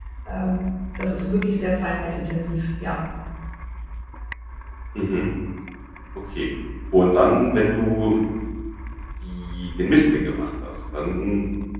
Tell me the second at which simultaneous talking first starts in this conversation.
none

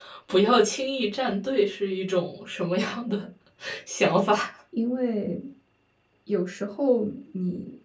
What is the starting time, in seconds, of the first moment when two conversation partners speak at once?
none

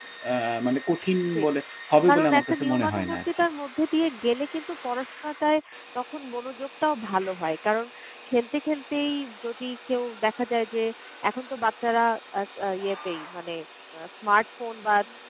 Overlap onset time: 2 s

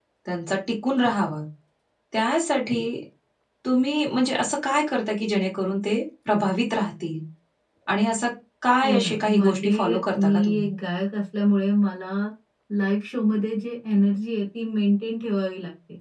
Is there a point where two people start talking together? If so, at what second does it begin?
9 s

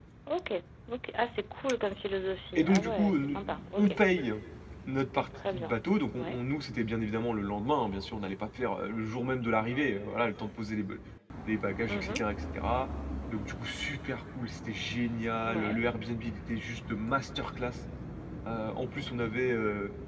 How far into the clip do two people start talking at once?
3 s

